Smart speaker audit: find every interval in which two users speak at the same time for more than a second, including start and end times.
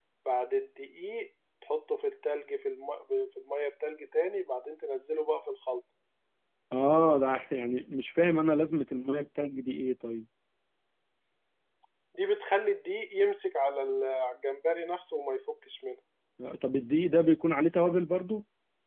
none

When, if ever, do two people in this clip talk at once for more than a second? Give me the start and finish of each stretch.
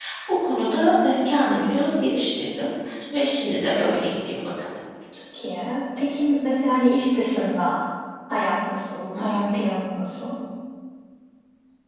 none

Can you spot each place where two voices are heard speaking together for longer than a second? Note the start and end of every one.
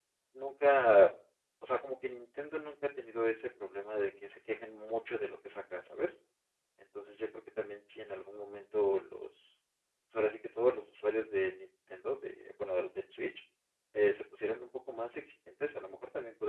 none

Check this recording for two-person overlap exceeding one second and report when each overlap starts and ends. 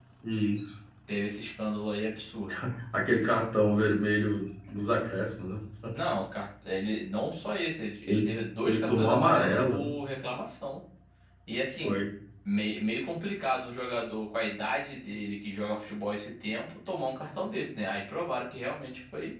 8.7-9.9

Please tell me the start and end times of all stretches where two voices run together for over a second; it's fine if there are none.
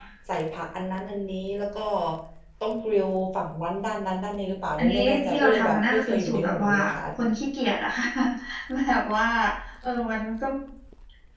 4.8-6.7

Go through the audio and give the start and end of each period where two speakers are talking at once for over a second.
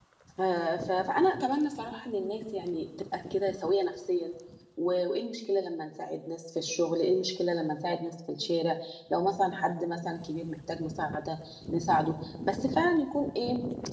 none

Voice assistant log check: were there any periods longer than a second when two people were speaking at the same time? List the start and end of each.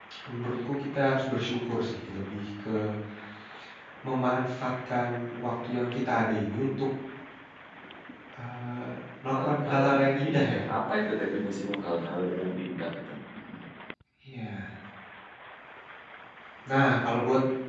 9.3-10.6

